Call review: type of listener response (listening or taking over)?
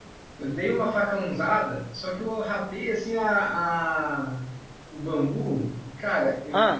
listening